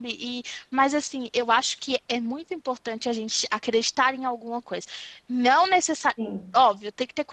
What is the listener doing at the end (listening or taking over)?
listening